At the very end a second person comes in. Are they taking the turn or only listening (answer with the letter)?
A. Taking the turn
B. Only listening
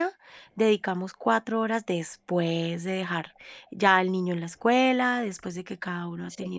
B